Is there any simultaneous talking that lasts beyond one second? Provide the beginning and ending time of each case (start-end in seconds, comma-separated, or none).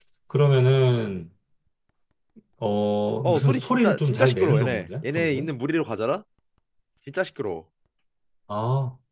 3.2-5.5